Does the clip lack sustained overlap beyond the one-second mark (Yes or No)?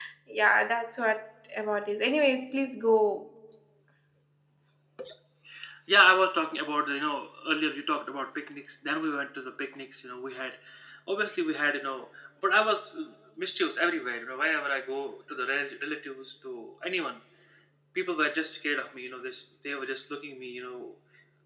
Yes